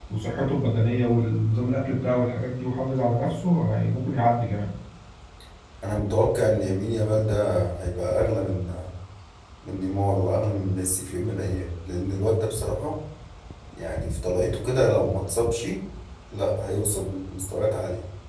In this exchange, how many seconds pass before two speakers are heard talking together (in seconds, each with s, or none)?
none